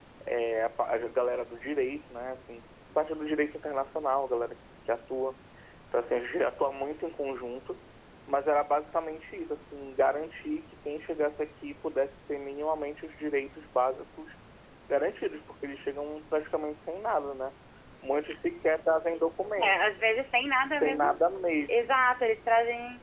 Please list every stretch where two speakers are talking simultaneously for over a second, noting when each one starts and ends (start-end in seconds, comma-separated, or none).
none